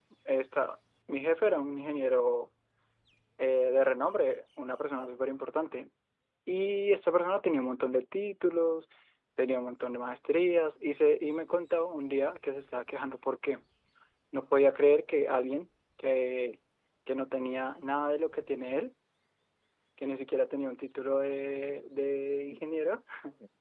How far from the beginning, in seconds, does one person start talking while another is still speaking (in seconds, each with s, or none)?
none